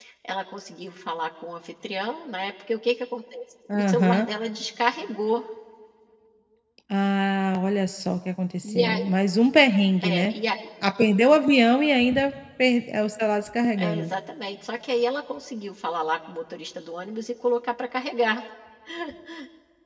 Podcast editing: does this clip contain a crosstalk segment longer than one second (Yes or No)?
No